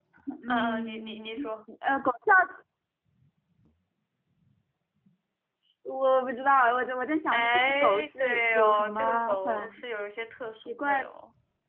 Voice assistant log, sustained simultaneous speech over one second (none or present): present